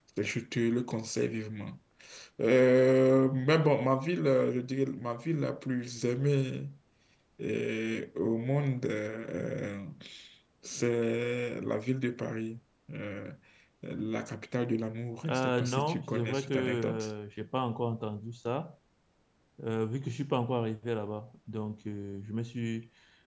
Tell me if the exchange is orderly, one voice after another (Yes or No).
No